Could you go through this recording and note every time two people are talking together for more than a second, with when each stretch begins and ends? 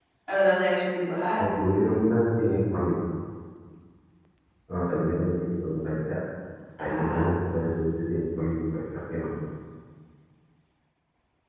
none

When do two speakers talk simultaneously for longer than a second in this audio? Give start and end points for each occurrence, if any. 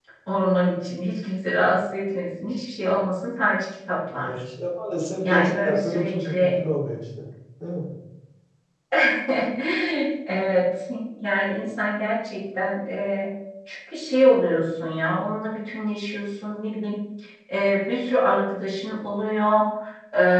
5.2-6.6

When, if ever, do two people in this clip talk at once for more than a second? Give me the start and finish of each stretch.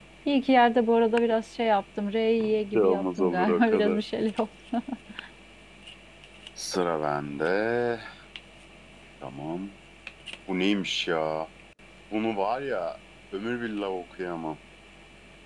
2.7-4.1

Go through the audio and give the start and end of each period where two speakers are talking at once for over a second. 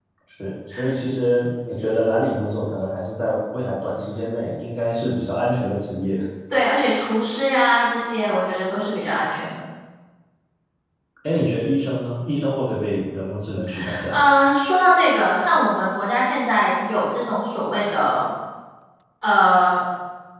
none

